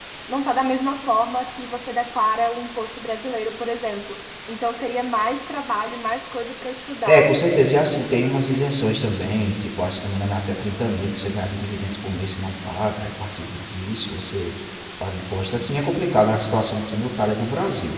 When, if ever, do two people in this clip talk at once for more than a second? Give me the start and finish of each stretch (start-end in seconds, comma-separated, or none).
none